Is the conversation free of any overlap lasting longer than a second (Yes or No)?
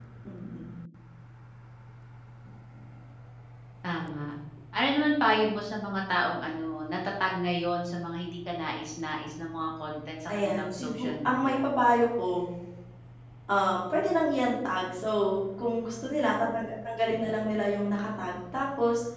No